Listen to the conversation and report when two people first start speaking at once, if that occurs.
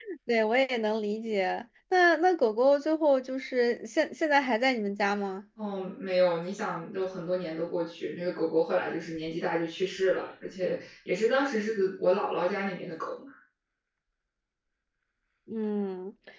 none

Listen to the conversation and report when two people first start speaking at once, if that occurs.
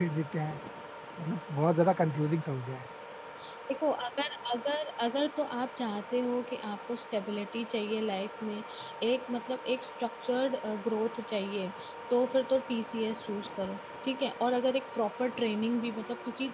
none

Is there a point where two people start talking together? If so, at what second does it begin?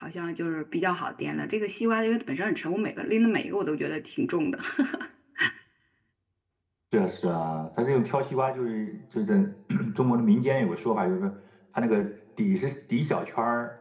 none

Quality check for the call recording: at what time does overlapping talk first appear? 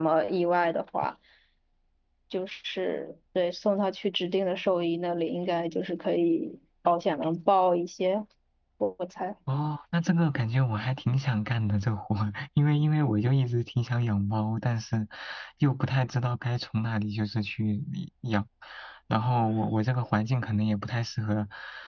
none

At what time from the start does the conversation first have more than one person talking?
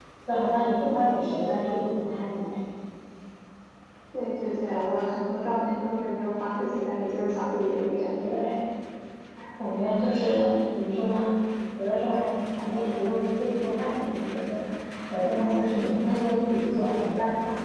none

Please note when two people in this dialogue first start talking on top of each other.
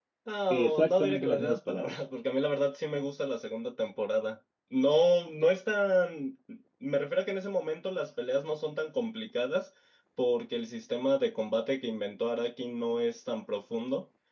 0.5 s

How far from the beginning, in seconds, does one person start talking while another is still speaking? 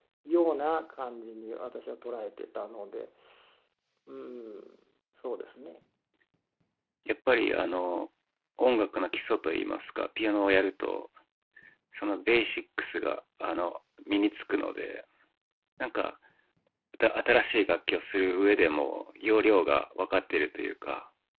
none

